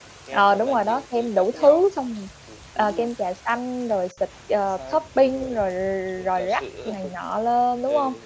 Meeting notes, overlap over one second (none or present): present